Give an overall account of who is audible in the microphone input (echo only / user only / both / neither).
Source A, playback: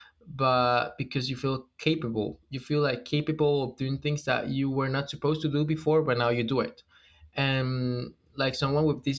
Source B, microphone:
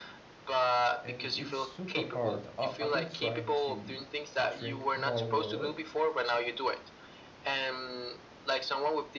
both